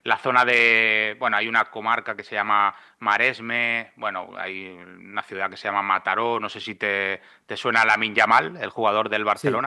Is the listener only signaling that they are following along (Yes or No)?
Yes